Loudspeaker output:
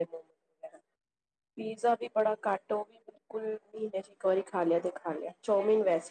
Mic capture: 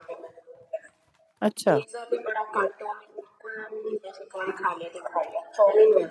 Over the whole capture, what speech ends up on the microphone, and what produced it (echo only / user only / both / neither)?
both